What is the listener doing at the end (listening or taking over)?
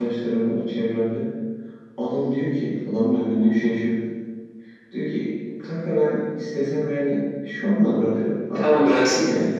taking over